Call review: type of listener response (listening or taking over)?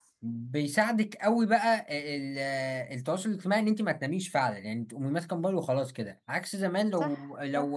listening